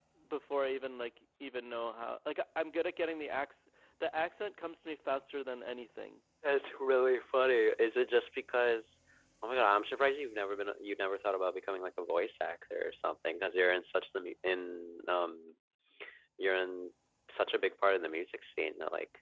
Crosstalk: none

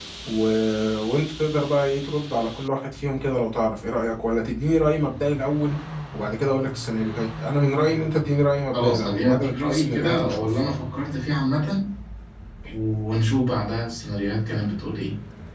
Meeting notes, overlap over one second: present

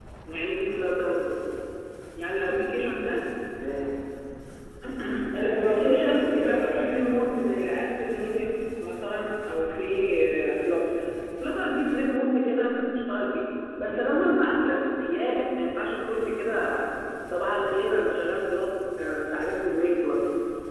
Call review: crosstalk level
present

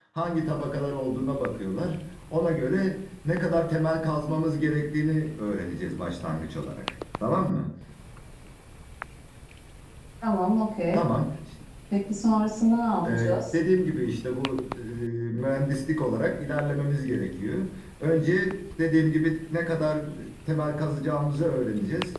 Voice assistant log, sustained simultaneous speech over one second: none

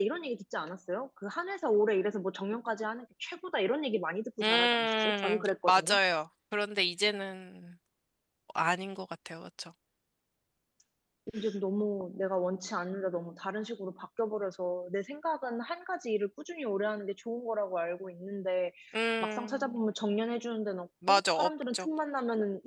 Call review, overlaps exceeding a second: present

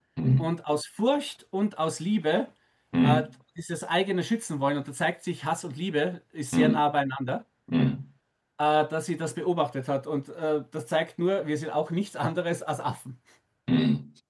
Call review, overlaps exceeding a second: none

